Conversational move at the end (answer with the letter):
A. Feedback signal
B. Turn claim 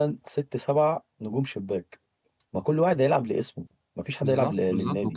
B